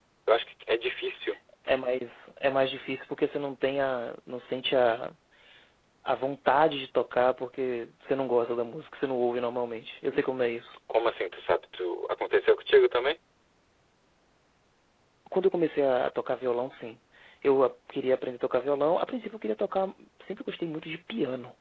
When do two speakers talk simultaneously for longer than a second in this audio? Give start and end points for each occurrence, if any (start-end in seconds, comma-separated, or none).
none